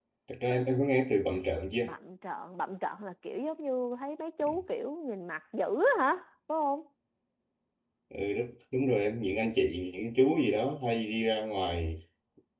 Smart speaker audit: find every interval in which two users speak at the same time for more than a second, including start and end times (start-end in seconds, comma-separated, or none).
none